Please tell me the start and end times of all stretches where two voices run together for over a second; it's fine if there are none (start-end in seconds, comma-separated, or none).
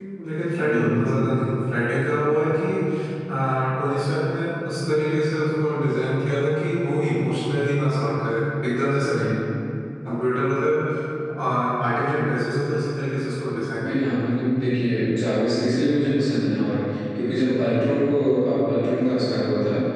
none